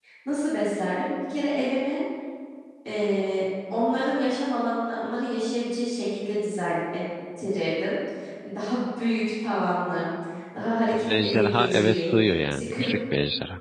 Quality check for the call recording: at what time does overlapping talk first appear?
10.9 s

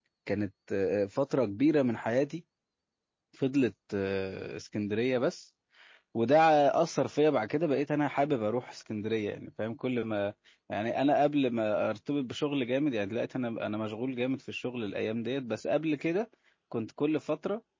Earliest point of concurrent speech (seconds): none

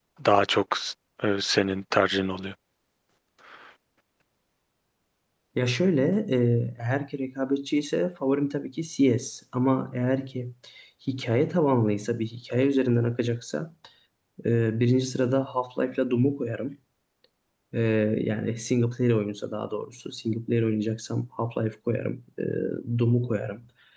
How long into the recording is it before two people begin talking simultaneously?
none

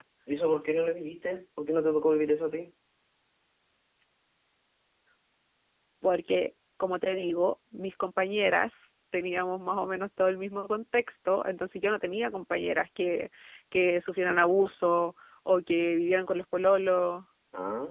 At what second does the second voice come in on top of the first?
none

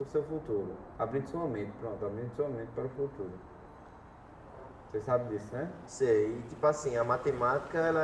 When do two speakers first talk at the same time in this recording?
none

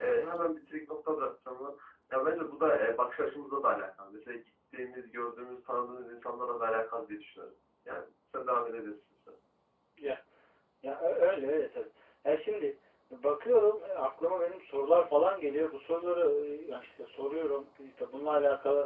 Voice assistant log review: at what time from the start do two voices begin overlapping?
none

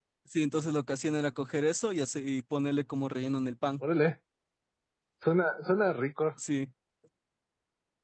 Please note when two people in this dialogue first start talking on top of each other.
none

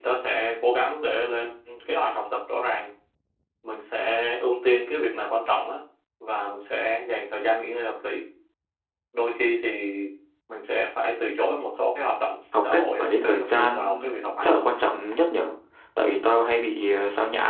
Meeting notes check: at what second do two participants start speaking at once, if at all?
12.5 s

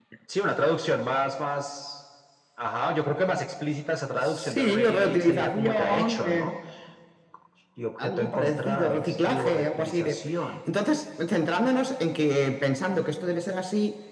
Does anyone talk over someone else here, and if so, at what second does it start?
4.3 s

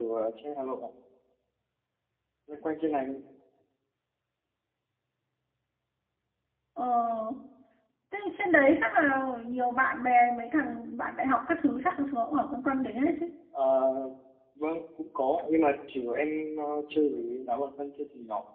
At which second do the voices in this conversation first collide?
none

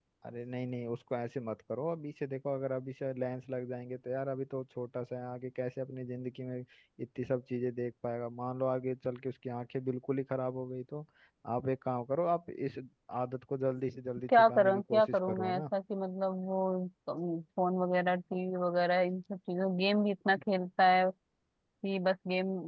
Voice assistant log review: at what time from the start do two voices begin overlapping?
14.3 s

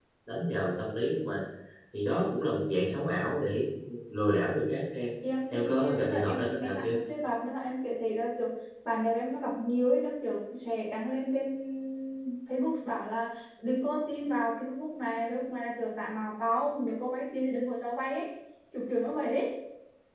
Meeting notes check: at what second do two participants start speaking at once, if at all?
5.5 s

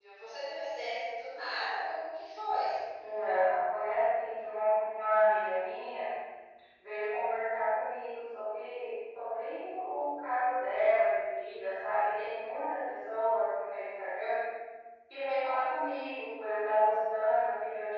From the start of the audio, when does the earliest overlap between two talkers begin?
none

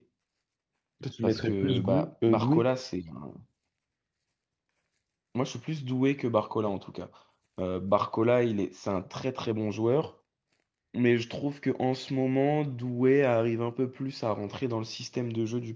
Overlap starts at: 1.2 s

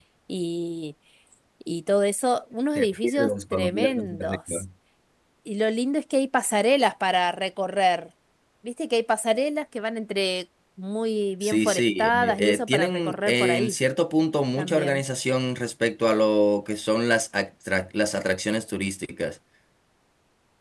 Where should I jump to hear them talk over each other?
2.8 s

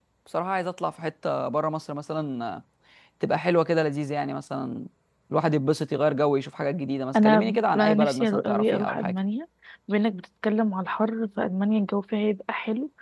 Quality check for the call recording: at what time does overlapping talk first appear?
7.1 s

